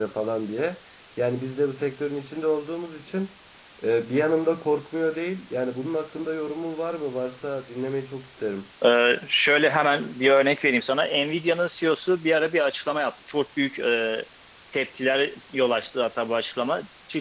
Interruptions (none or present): none